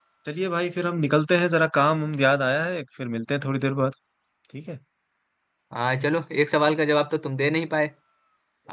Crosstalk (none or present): none